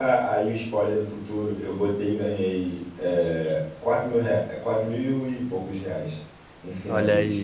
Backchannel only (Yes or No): No